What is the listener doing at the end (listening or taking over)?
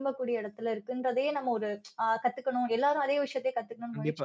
taking over